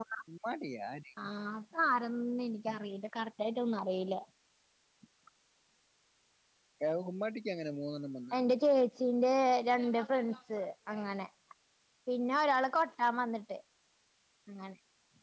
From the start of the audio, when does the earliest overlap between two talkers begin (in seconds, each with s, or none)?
none